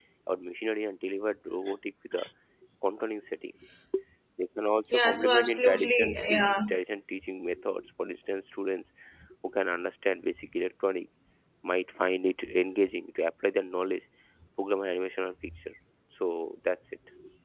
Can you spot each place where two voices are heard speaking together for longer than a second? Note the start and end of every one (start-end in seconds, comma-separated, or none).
4.9-6.5